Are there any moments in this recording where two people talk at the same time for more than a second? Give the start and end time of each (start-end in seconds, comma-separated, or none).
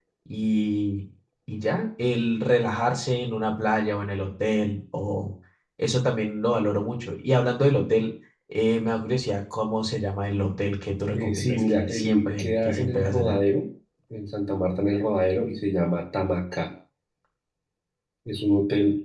11.1-13.4